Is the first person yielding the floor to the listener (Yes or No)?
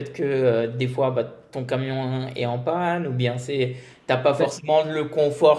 No